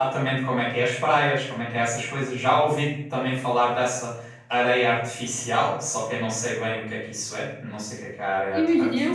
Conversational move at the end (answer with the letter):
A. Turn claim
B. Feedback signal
A